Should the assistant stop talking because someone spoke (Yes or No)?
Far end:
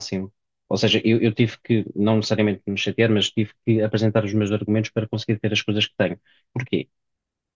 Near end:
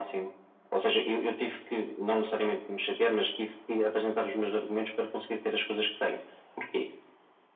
No